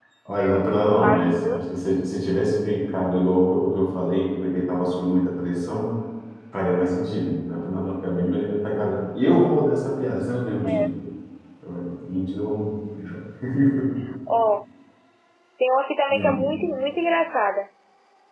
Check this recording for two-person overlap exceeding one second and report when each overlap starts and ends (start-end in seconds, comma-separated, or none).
none